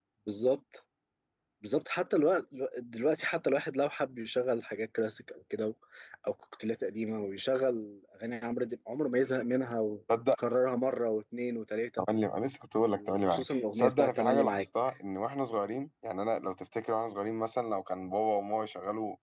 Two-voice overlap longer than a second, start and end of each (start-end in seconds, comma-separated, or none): 12.9-14.7